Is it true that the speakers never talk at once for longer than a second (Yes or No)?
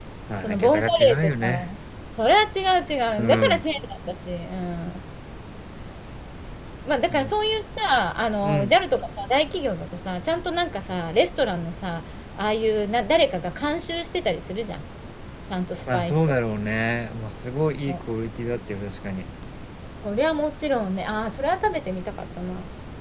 No